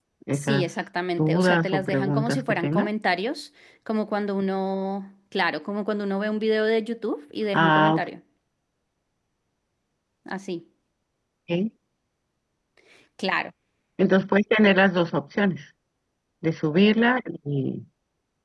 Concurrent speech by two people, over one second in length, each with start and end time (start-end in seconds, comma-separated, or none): 1.2-2.9